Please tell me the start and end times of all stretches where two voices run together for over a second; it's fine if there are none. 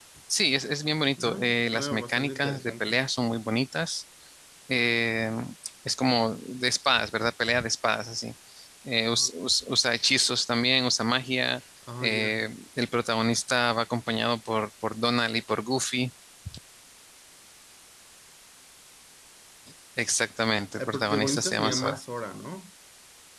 1.2-3.0, 20.8-22.0

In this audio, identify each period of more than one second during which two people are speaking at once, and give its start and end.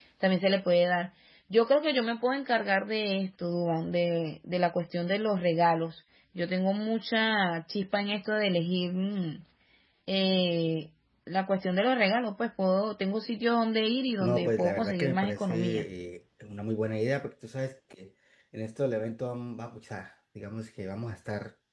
14.2-15.8

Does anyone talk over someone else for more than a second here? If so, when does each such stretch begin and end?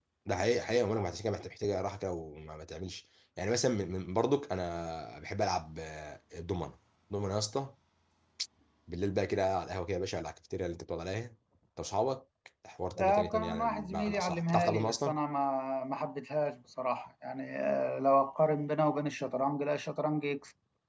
13.0-15.1

